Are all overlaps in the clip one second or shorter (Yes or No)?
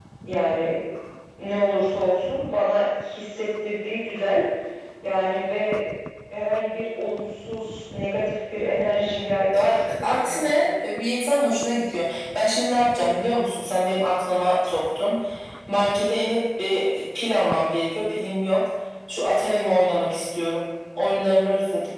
No